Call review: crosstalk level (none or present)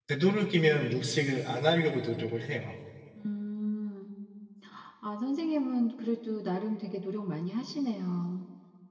none